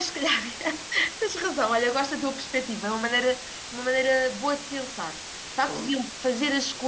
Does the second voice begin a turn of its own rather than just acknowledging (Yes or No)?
No